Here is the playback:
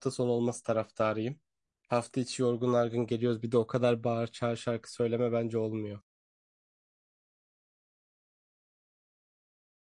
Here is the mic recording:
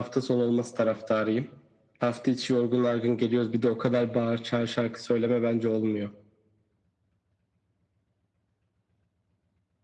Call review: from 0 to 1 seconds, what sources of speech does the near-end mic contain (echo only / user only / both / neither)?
echo only